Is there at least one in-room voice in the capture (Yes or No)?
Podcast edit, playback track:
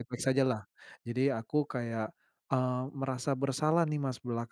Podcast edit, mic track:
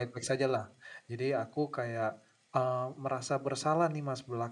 No